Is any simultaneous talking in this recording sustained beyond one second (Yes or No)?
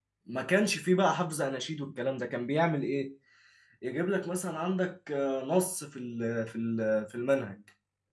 No